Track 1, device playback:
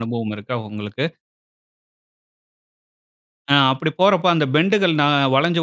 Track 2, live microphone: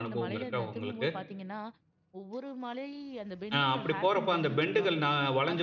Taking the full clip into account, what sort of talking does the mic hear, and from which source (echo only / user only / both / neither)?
both